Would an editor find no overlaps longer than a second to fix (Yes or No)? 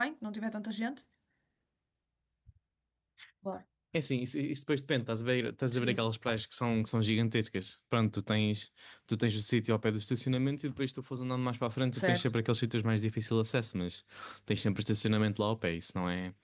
Yes